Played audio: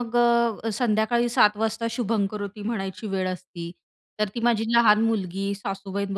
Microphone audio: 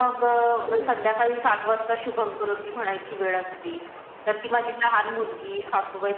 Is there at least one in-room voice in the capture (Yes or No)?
Yes